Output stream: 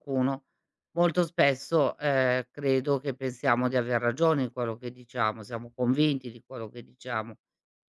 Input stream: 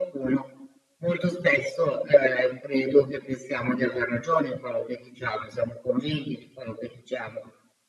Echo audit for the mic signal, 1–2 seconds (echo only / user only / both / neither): echo only